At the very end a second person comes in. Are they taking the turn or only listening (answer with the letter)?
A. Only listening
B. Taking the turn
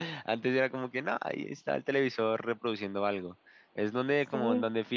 A